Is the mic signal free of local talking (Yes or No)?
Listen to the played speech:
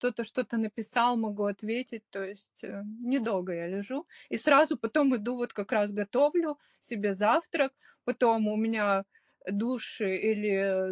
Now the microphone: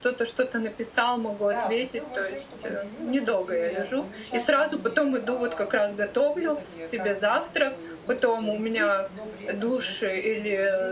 No